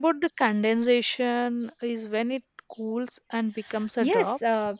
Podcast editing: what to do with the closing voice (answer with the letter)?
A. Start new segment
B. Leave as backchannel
A